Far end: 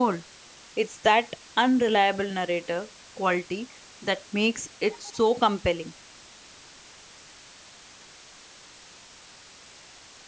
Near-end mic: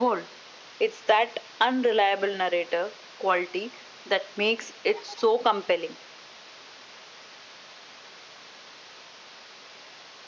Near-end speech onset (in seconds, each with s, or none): none